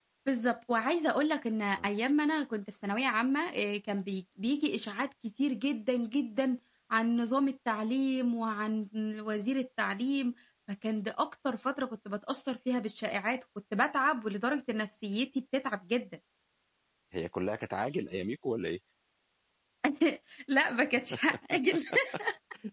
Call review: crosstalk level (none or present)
none